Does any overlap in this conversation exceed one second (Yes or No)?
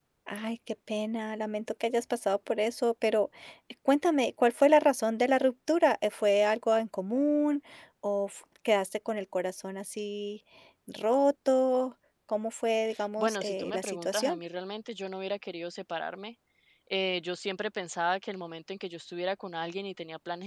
Yes